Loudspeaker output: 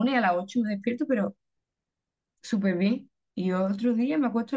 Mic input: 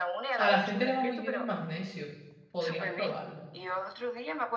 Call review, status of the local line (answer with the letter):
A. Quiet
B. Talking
B